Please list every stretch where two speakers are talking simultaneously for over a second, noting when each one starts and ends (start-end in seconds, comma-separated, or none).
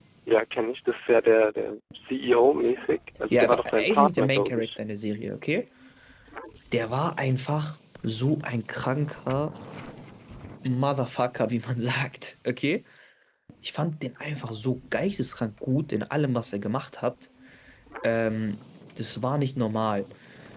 3.3-4.8